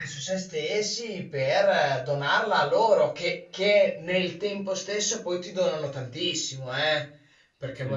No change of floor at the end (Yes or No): Yes